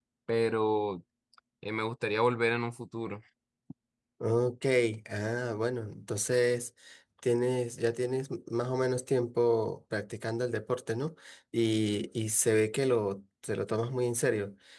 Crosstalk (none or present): none